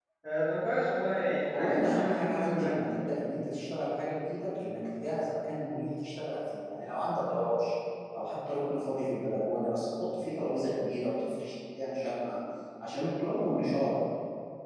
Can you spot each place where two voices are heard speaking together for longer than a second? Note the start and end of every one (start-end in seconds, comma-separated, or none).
1.5-2.8